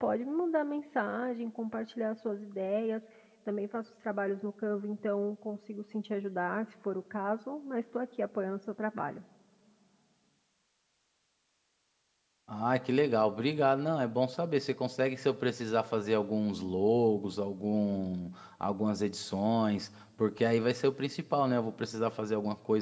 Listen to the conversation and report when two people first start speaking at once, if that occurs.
none

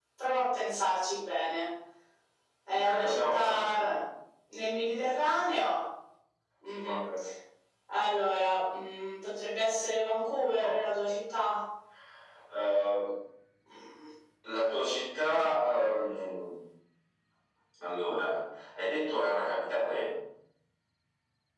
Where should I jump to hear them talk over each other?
3 s

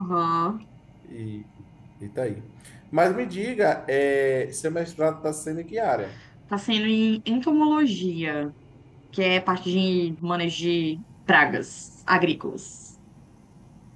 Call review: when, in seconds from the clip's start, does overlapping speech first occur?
none

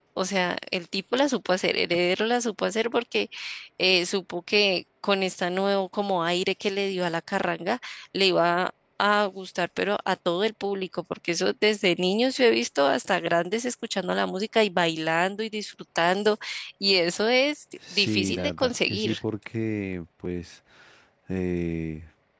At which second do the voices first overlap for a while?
18 s

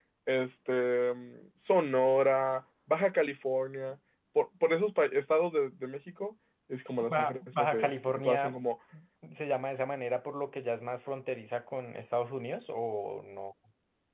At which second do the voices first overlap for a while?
7 s

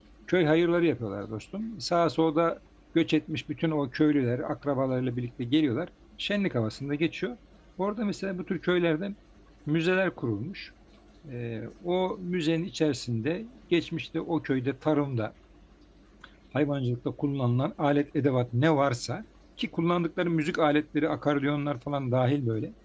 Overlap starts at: none

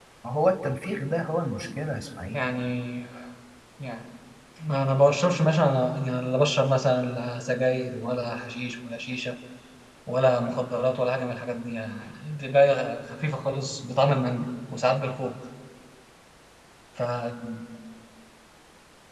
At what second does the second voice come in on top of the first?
none

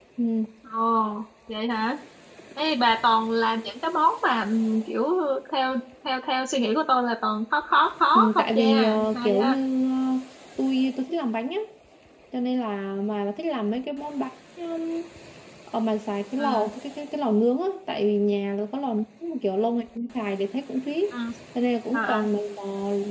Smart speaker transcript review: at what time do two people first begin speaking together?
8 s

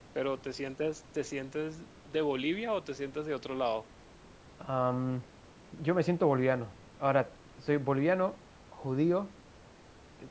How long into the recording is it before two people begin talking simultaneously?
none

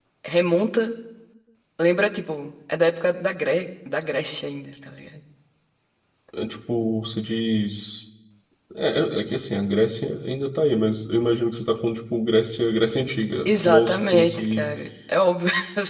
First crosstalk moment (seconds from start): 13 s

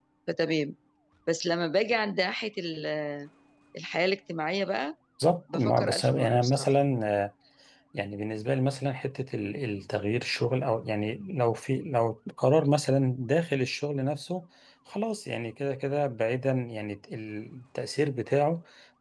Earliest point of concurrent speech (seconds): 6 s

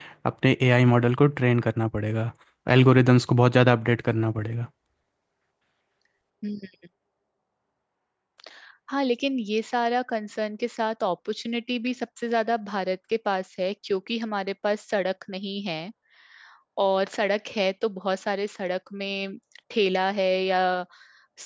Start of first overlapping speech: none

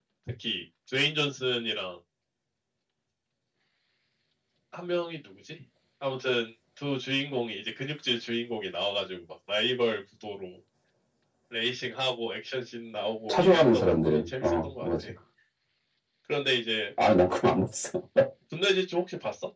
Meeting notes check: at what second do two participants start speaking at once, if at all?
13 s

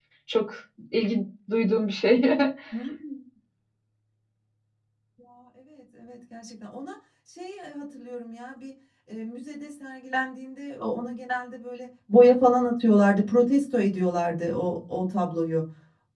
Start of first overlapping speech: none

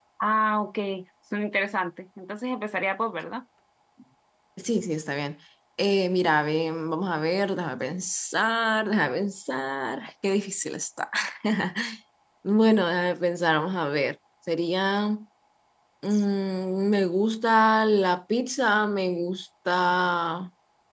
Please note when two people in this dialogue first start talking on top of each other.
none

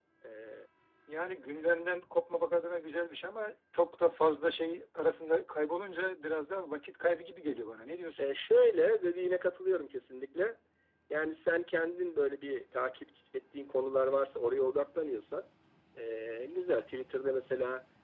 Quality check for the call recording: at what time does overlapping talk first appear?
none

